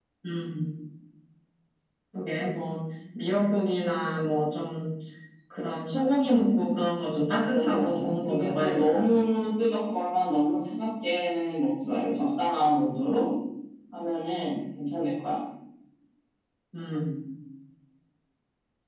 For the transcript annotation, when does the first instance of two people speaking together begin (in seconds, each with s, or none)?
7.5 s